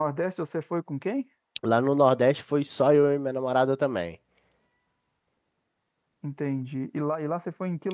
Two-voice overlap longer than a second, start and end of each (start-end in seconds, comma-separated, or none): none